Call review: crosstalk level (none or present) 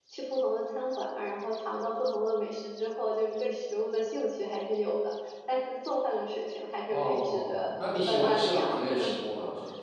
present